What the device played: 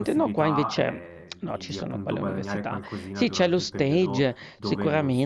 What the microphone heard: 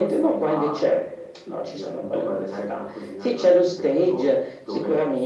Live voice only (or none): none